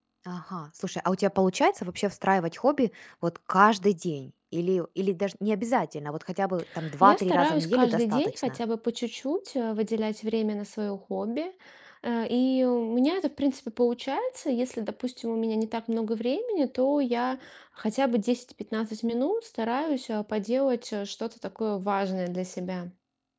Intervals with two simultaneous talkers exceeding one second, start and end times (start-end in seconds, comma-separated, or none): 7.0-8.6